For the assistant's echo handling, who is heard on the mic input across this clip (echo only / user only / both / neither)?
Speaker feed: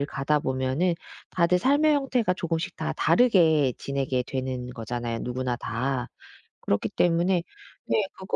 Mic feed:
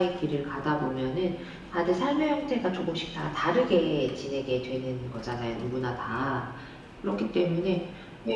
echo only